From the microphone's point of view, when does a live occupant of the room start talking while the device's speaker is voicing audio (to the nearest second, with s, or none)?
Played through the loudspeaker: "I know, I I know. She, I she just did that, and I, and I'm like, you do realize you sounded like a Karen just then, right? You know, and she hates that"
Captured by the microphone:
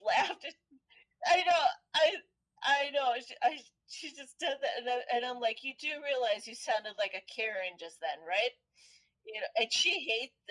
none